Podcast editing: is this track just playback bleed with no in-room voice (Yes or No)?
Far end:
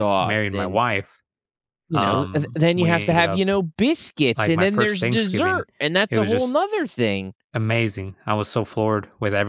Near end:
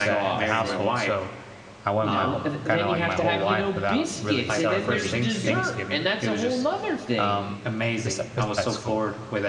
No